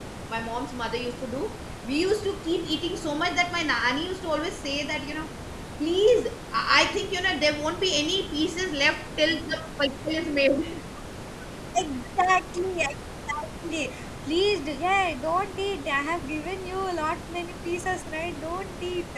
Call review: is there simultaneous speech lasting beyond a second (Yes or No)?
No